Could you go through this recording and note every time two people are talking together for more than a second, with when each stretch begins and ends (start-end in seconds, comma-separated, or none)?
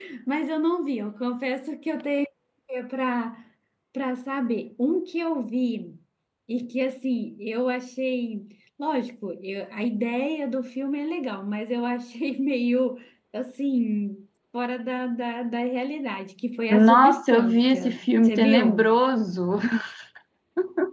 16.7-18.9